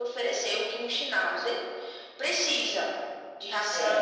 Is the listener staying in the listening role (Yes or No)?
Yes